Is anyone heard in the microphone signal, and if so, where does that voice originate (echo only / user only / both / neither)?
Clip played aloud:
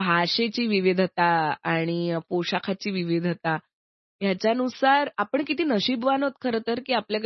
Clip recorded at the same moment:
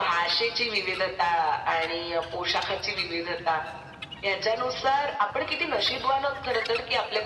echo only